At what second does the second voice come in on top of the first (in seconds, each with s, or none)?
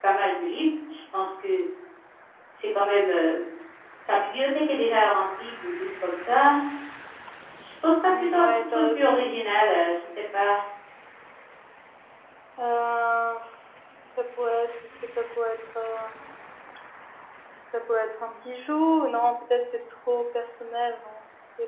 8.1 s